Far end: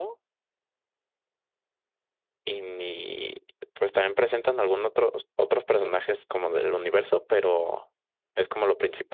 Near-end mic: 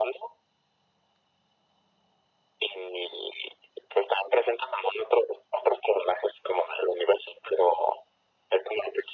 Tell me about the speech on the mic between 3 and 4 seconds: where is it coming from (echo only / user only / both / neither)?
echo only